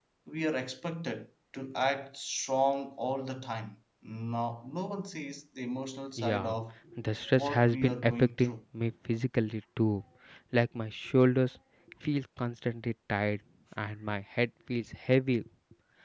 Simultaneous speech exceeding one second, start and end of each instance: 7.4-8.6

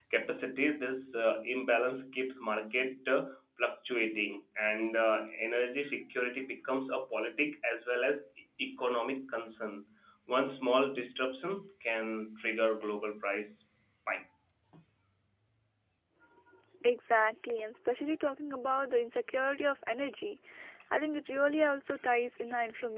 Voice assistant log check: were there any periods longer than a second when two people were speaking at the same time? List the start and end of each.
none

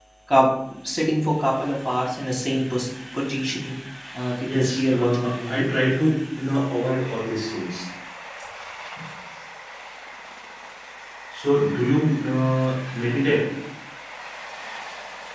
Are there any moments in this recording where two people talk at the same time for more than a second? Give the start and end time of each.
4.4-5.6

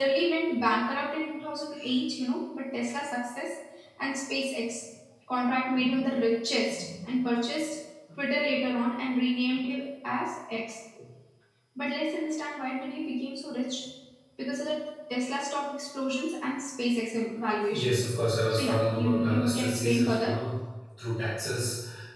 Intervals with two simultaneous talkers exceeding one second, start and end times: 18.5-20.4

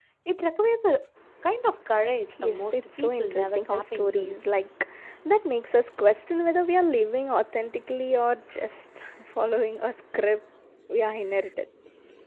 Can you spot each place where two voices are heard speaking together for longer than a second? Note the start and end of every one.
2.4-4.4

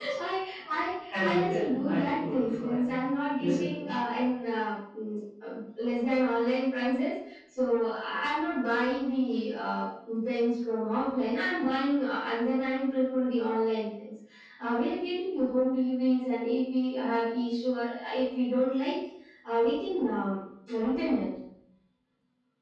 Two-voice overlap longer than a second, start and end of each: 1.3-3.0

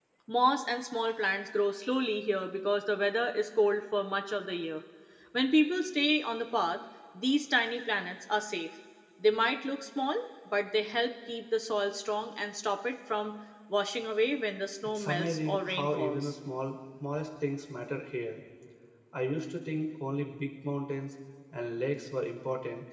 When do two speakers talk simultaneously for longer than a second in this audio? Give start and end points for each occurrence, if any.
14.9-16.3

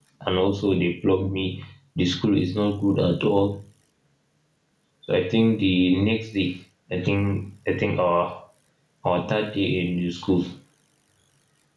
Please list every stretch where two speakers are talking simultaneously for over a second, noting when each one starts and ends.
none

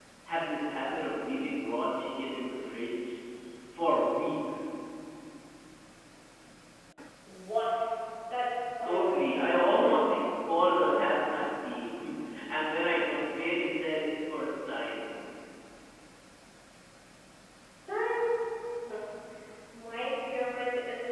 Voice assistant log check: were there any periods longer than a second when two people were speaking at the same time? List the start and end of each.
8.8-10.1

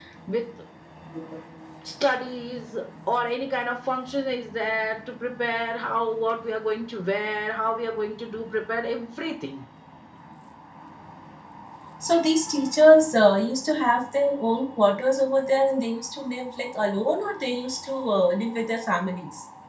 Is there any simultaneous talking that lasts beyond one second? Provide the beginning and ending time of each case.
none

